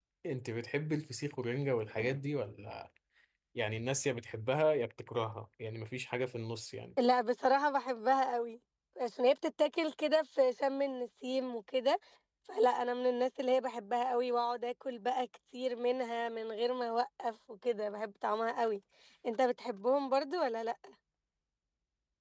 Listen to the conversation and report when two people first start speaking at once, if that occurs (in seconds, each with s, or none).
none